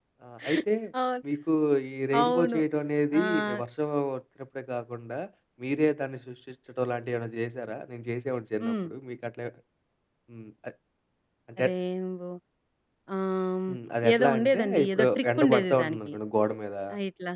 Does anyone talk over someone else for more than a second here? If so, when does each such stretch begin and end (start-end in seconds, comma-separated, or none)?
14.1-16.1